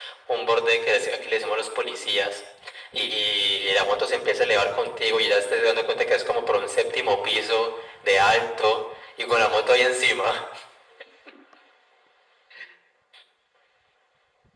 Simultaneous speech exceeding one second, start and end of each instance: none

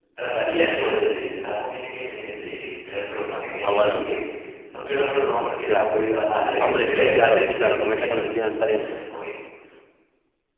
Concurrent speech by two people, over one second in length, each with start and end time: 6.6-8.2

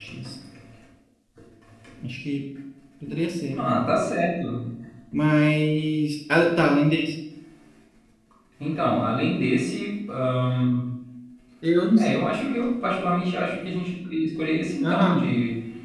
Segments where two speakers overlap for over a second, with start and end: none

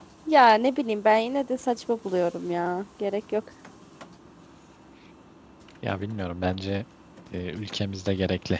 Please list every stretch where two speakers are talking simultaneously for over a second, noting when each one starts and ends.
none

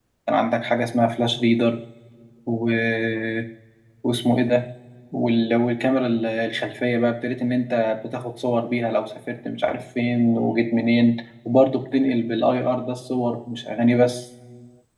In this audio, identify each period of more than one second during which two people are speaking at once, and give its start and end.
none

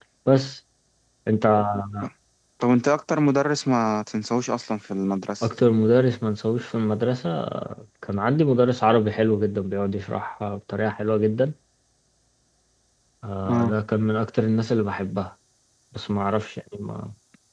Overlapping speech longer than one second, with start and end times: none

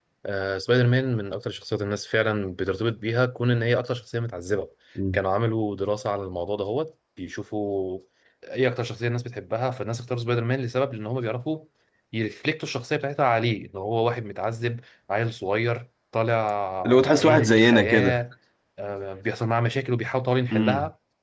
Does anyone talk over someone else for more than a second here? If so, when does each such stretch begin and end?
16.8-18.1

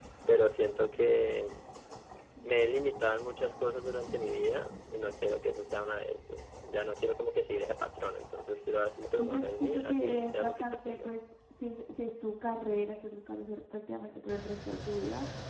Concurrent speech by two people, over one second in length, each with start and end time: 9.1-11.1

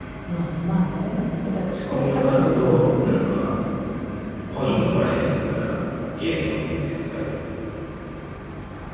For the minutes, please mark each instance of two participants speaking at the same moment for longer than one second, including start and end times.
1.6-2.9

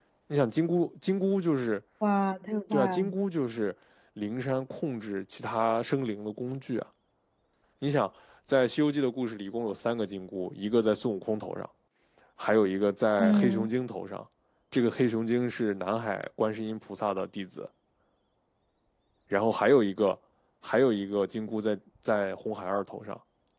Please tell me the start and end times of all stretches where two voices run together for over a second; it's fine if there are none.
none

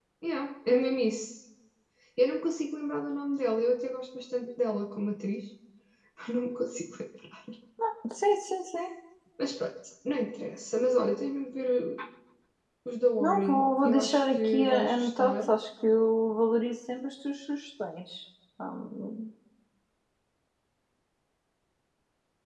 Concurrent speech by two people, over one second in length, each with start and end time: 13.2-15.5

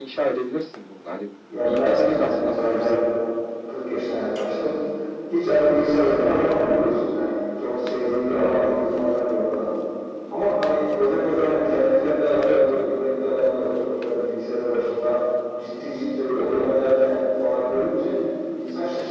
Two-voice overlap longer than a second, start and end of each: 1.6-3.0

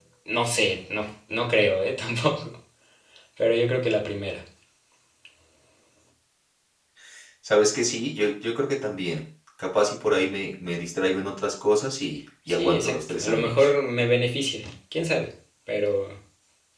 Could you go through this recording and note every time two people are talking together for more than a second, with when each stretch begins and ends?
12.5-13.7

